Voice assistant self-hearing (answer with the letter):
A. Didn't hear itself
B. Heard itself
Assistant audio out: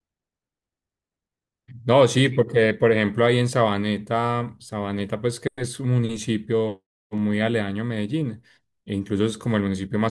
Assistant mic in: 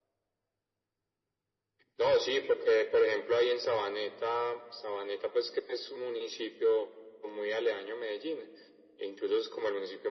B